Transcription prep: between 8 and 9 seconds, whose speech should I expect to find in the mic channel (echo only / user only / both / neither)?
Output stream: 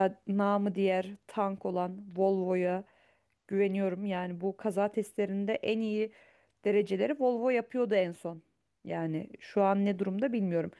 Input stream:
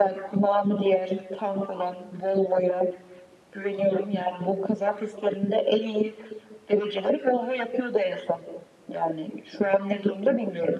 echo only